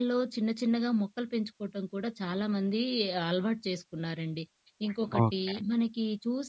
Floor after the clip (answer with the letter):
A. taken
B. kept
B